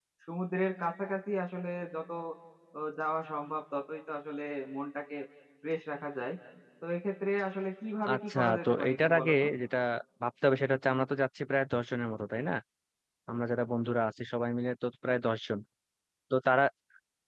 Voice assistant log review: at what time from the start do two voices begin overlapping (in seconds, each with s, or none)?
8.1 s